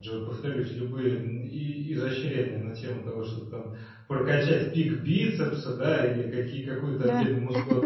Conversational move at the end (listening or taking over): listening